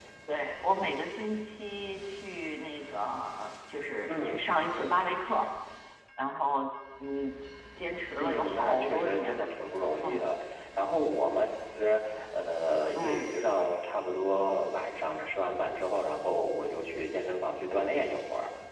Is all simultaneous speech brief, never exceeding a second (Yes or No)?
No